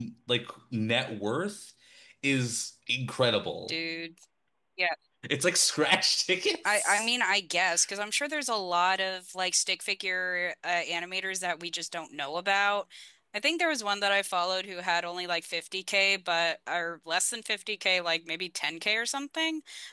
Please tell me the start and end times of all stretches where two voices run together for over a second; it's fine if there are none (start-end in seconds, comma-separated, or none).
none